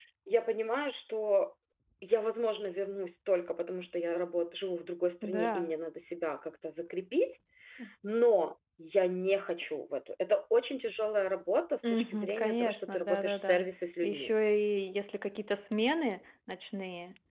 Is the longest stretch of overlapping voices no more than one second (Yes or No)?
No